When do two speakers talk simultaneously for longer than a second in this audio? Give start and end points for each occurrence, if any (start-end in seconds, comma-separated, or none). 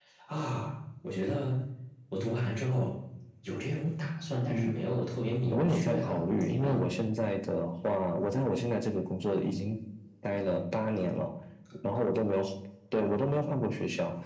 5.5-7.0